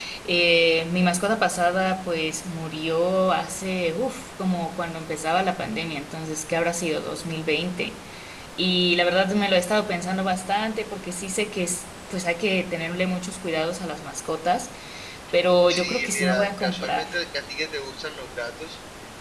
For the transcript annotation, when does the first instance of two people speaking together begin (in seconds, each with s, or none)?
15.7 s